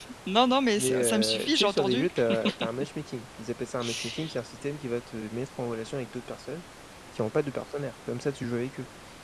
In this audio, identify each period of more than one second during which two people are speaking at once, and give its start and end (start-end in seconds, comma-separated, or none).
0.8-2.1